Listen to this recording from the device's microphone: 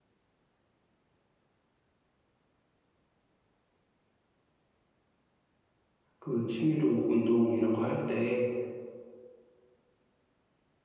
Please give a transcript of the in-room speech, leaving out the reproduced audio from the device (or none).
그 취미로 운동 이런 거 할 때